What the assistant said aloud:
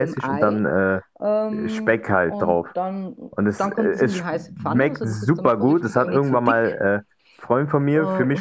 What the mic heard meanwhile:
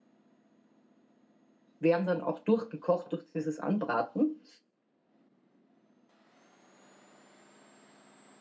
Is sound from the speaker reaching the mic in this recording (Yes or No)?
No